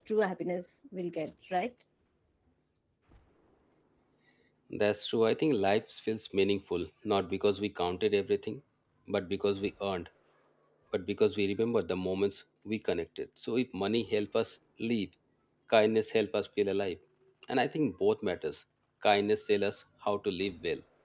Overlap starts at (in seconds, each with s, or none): none